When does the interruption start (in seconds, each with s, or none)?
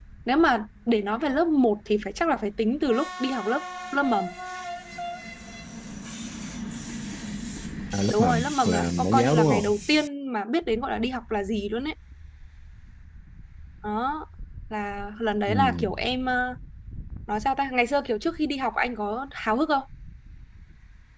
8.1 s